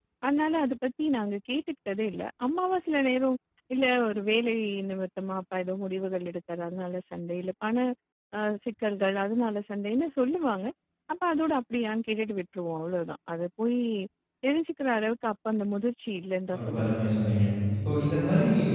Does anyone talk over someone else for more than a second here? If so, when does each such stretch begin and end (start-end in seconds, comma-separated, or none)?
none